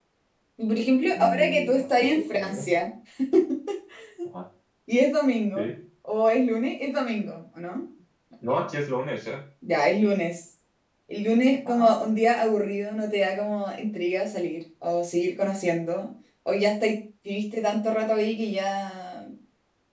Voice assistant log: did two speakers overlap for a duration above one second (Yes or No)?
Yes